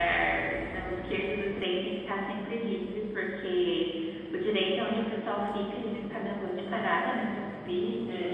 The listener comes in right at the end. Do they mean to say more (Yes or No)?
No